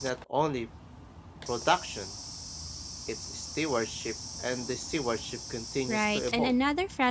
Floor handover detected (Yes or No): Yes